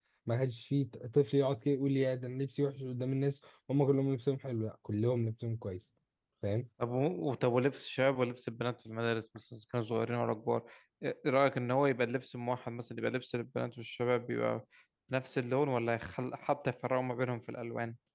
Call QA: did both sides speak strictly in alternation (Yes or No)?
Yes